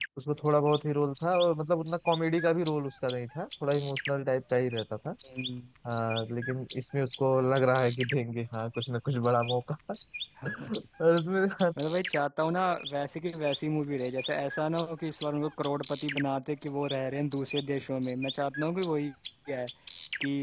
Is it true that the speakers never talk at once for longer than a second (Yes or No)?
Yes